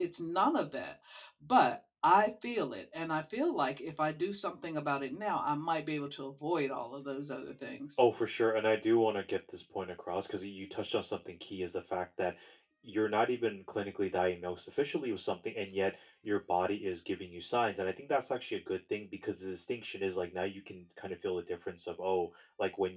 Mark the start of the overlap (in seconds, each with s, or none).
none